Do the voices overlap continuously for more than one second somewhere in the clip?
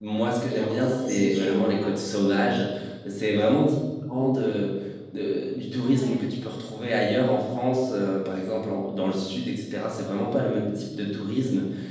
Yes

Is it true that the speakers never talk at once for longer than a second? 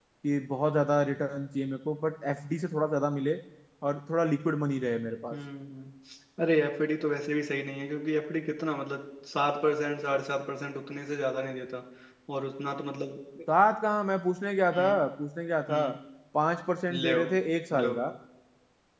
Yes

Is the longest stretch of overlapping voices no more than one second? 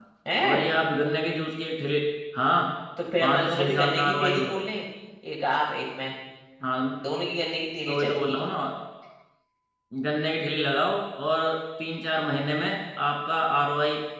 No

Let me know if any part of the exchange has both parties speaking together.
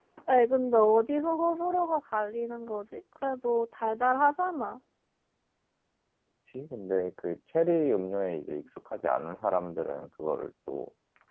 No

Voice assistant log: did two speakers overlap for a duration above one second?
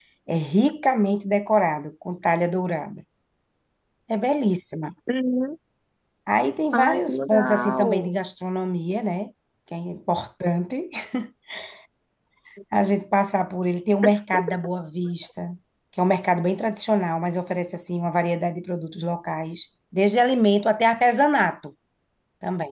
Yes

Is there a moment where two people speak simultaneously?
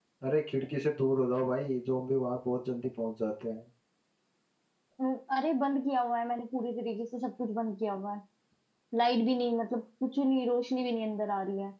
No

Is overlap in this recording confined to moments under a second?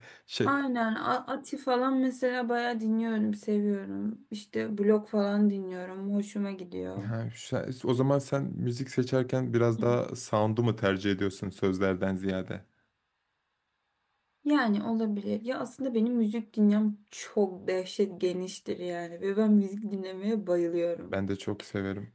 Yes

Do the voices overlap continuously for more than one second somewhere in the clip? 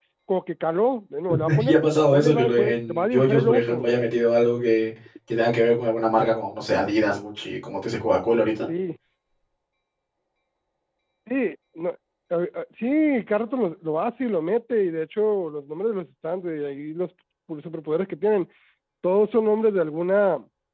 Yes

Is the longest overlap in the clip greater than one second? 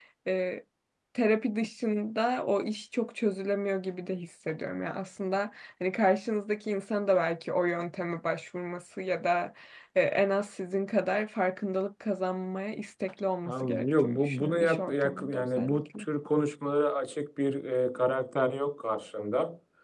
Yes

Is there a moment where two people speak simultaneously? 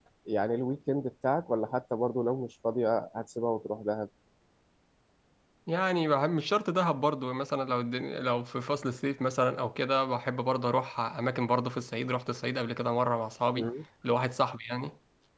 No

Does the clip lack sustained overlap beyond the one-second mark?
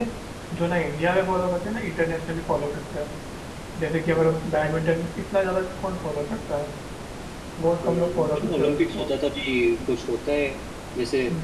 No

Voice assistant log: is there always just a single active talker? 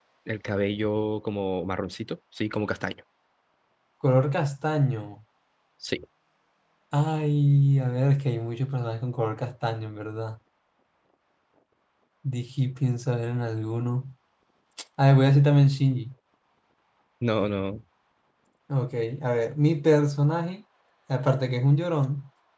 Yes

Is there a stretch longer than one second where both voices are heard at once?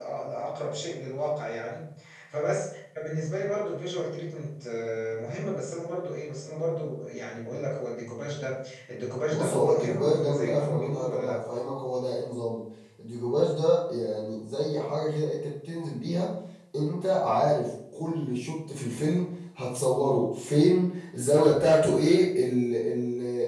Yes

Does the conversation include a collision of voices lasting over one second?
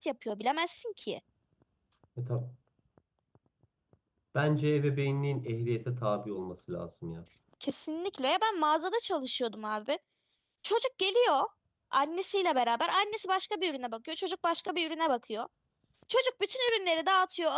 No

